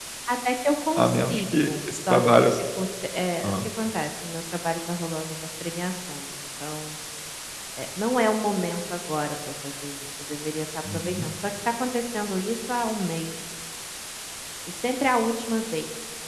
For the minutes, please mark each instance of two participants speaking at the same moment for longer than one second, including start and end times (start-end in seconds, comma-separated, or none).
1.0-2.6